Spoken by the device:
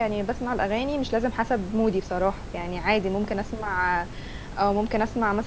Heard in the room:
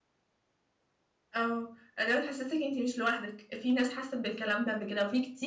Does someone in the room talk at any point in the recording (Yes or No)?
Yes